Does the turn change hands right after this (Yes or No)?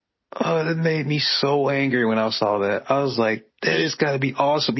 No